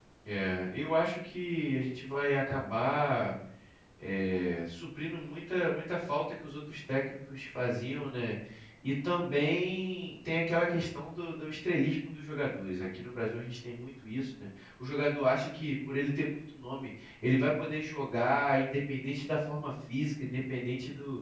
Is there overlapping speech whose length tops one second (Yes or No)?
No